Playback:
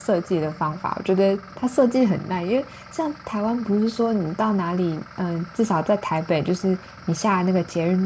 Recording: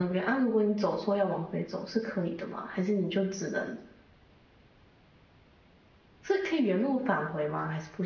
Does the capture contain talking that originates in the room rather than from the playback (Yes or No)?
Yes